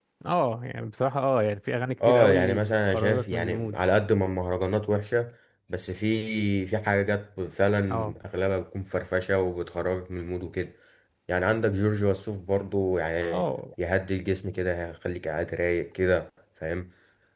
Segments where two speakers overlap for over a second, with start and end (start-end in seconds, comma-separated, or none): 2.1-3.8